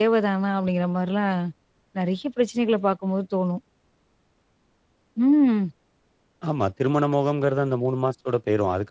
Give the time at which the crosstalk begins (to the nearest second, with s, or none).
none